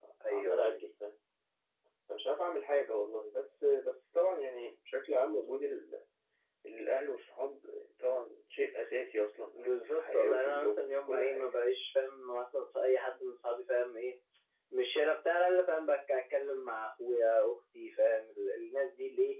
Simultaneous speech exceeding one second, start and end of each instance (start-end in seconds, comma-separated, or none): 9.5-11.4